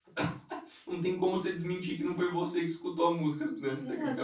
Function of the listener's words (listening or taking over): taking over